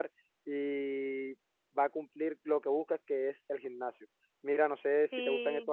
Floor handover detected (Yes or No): No